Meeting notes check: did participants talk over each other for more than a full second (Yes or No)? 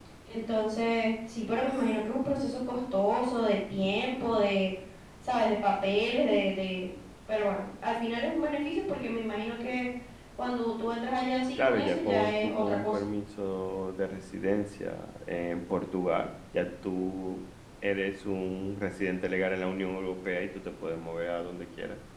Yes